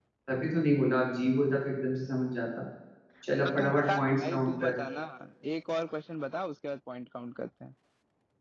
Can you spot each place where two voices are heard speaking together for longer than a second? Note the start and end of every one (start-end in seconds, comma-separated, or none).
3.5-4.7